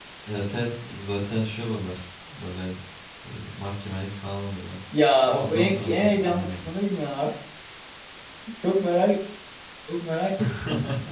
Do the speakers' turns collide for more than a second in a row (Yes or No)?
Yes